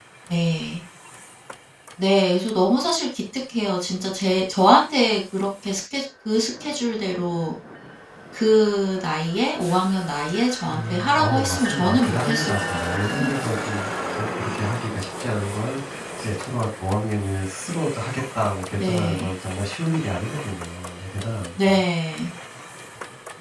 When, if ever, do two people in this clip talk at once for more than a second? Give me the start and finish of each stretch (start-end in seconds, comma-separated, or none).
10.7-13.3